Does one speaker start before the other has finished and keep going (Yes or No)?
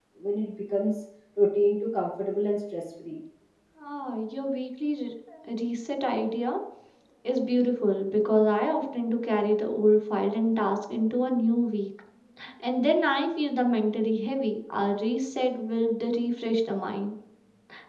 No